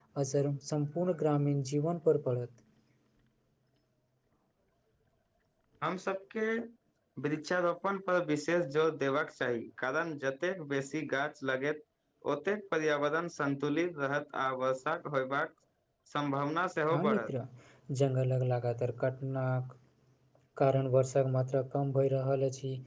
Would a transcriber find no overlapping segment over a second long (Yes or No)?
Yes